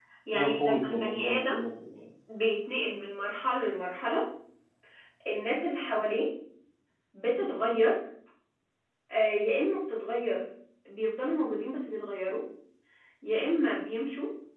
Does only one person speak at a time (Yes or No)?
No